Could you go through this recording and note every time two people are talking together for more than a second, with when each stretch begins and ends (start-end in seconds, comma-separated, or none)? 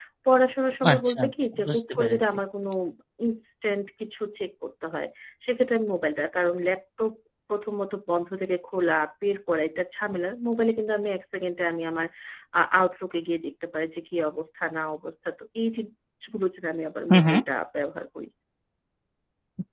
0.9-2.2